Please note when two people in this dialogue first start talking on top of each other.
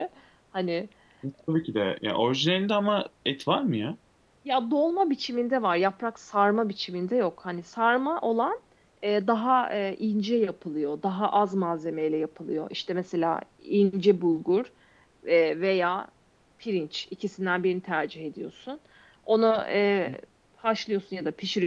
none

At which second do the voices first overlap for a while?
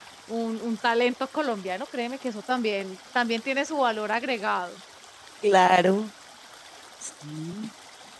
none

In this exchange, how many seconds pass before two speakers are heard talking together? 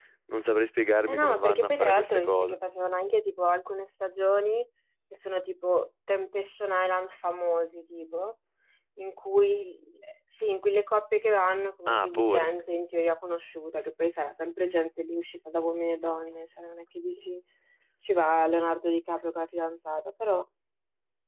1.1 s

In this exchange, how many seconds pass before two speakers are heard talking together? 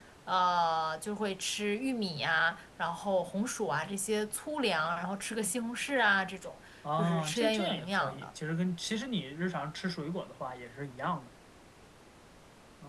6.8 s

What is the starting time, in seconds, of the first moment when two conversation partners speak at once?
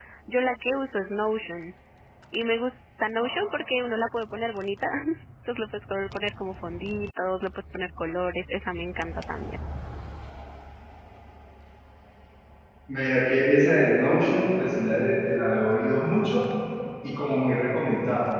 none

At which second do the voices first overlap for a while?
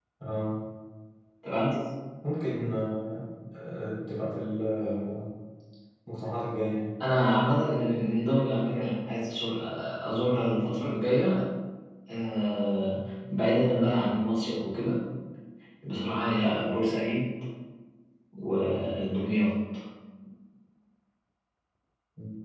none

